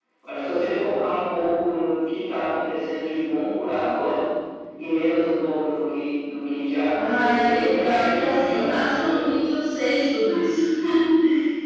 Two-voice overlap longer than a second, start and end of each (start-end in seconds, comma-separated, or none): 6.9-9.2